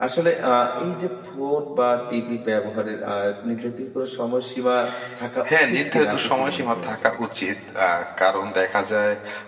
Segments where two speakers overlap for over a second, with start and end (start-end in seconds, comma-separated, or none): 5.5-7.2